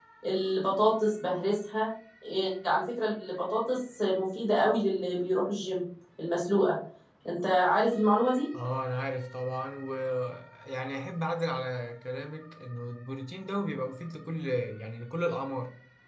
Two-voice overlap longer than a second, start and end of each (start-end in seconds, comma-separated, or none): none